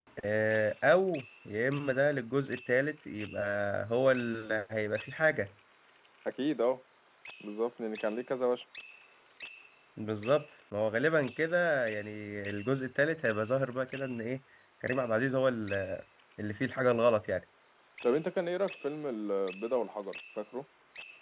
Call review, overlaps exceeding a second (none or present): none